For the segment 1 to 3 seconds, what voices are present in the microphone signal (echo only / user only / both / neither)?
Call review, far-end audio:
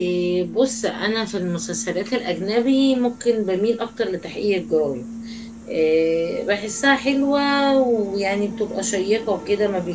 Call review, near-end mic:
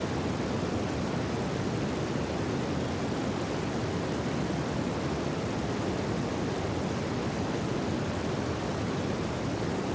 neither